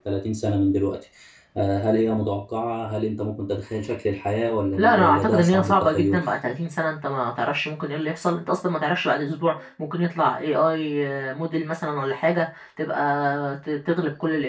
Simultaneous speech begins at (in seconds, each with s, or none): 4.8 s